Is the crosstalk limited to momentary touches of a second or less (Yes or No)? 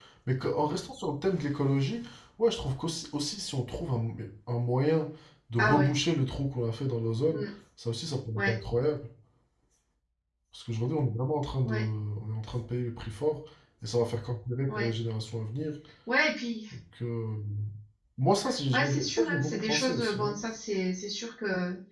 No